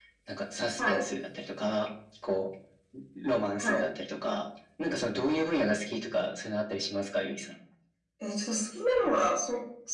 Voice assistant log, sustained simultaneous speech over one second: none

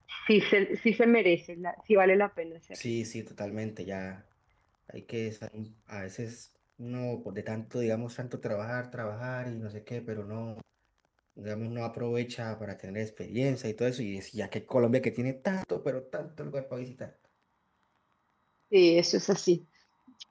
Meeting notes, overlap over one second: none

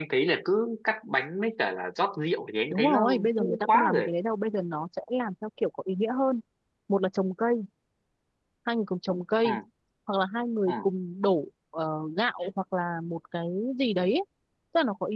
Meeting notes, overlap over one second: present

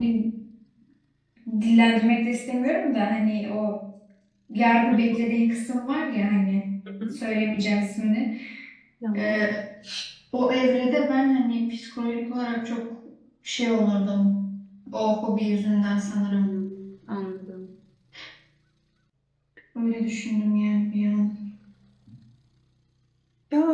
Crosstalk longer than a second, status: none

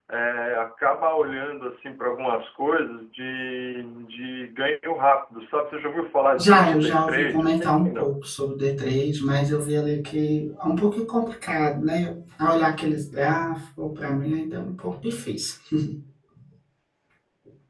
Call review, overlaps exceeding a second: present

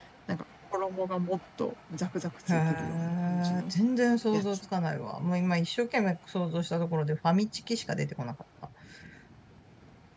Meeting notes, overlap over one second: present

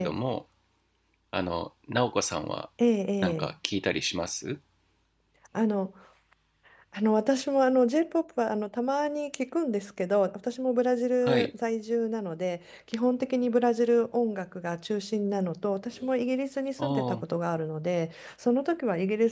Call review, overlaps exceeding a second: none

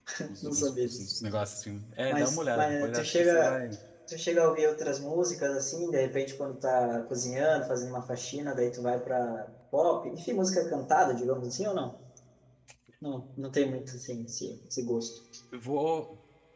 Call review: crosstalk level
present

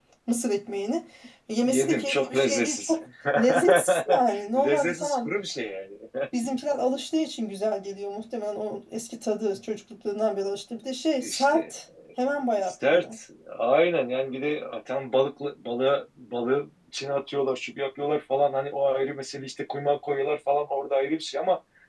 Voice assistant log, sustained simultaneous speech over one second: present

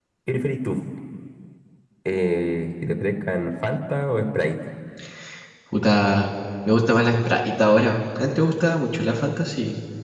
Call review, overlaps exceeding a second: none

